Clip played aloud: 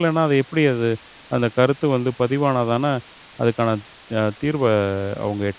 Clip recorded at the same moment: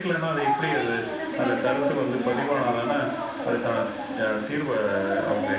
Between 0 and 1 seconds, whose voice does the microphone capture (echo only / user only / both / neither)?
both